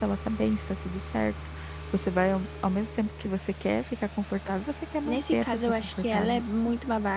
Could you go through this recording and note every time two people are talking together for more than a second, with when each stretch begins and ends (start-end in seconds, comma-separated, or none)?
5.0-6.4